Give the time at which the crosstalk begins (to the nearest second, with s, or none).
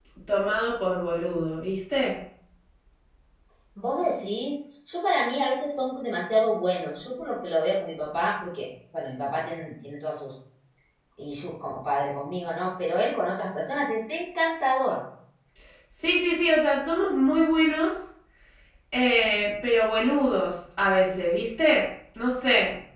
none